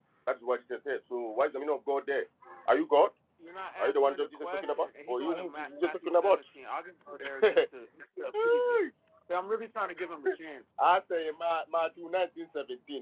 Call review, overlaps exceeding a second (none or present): present